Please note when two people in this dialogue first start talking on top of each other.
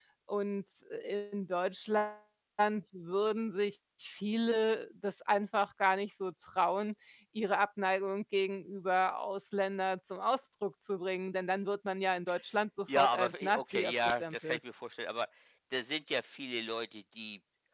12.9 s

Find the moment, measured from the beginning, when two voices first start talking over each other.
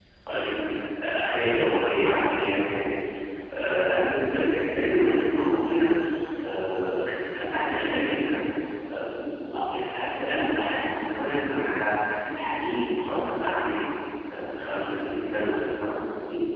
none

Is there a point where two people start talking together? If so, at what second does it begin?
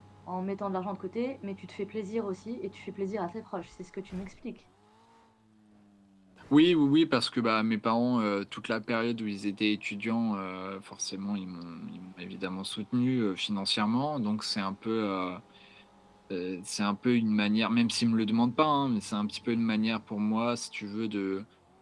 none

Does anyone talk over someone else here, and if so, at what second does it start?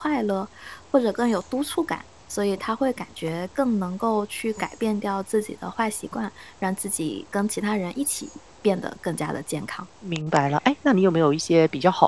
none

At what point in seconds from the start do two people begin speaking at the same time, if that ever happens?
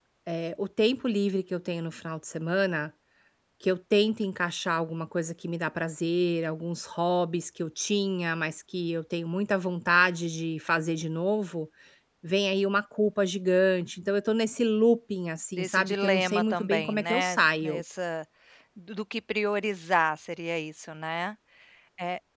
15.6 s

